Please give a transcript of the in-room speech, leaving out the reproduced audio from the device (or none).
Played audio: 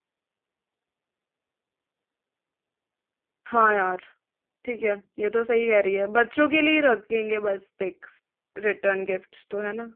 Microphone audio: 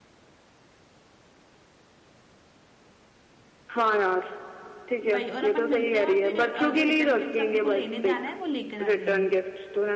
भाई और अपन मिलते हैं और फिर अ, जो रिटर्न किट्स अपन को लेने जाना है वो लेकर आ जाएंगे